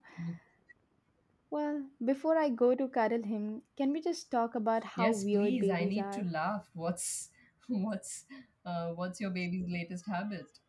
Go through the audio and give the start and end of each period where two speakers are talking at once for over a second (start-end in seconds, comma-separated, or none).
5.0-6.3